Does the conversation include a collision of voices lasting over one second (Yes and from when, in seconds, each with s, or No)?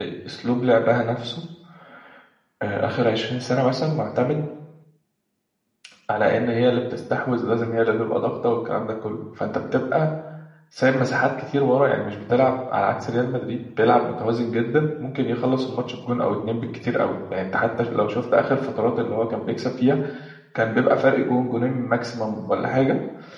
No